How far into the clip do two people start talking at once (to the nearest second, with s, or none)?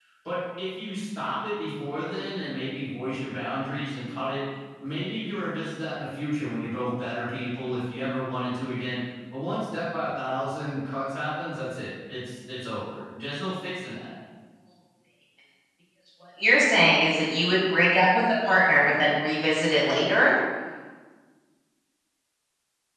none